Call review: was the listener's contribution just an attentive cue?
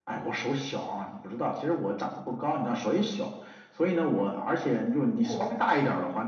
Yes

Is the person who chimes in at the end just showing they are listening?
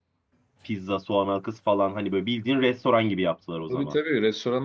No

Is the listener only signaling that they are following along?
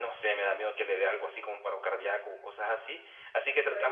Yes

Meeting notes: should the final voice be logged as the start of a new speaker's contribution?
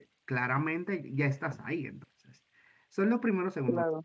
No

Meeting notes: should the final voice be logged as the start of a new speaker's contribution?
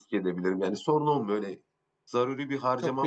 Yes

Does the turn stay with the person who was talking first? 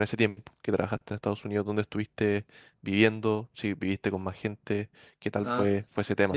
No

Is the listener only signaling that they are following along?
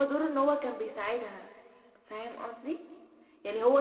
Yes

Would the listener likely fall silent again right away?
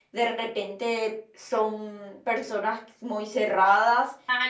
No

